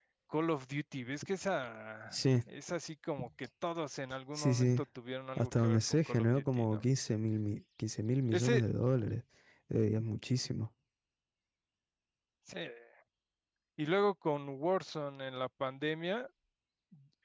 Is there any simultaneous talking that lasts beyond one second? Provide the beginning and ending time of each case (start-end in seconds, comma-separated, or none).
5.4-6.9